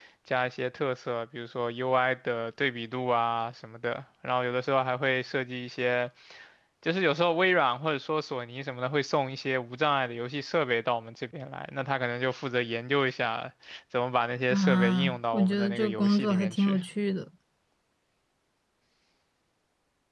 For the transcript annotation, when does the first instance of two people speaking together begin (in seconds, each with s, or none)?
14.5 s